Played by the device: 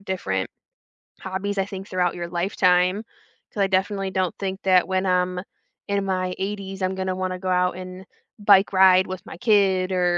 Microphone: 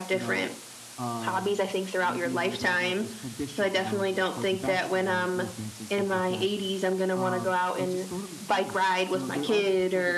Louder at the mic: echo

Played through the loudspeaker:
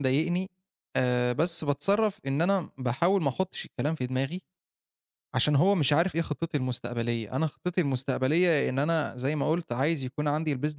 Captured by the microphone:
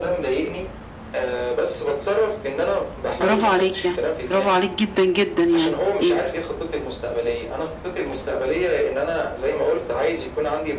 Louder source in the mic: user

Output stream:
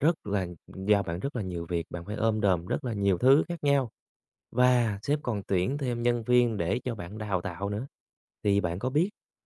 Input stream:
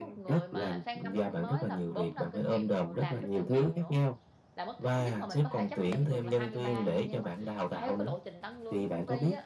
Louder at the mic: echo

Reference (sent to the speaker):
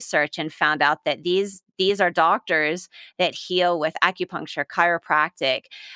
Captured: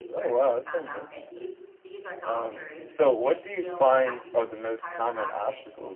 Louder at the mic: user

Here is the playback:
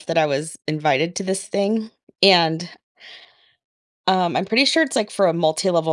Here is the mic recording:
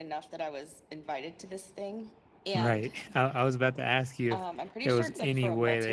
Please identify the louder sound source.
user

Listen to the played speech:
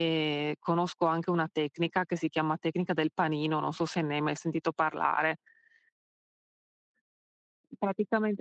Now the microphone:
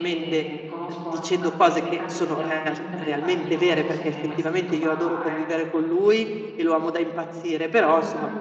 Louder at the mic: user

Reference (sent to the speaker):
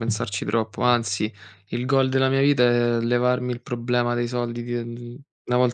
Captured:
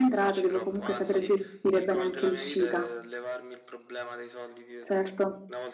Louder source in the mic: user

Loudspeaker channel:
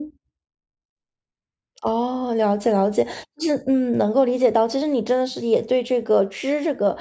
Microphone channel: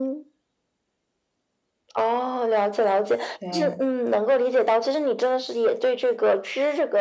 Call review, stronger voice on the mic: echo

